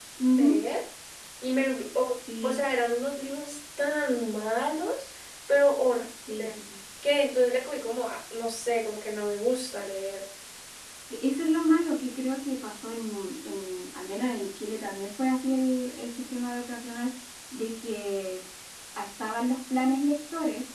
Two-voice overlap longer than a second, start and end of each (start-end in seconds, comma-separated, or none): none